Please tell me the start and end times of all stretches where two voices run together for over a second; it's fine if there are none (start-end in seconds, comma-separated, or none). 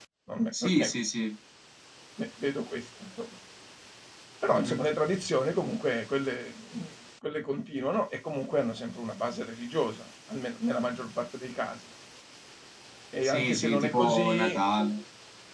13.2-14.6